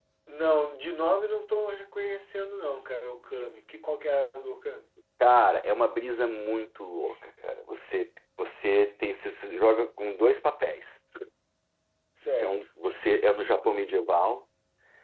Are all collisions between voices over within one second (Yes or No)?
Yes